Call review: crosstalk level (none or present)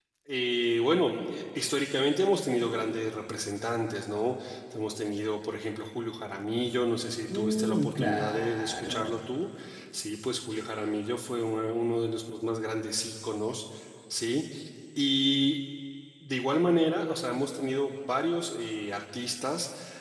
present